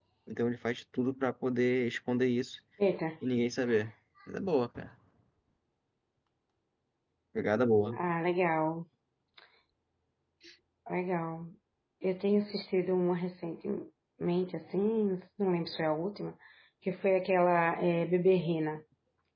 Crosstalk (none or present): none